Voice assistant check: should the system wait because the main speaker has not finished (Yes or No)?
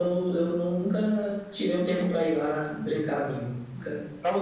No